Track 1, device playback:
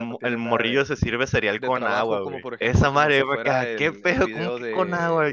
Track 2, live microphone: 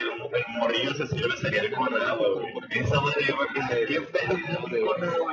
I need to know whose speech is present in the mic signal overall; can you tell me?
echo only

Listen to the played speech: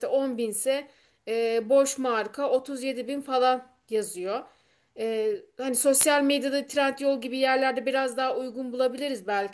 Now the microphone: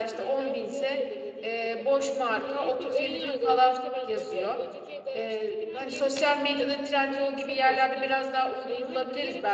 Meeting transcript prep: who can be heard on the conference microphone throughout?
both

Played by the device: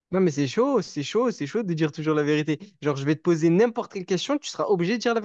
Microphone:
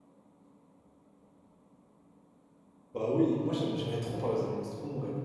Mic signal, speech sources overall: user only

